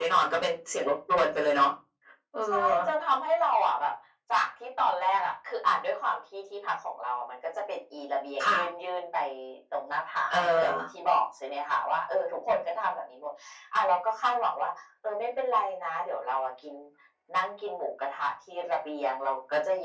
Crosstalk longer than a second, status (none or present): none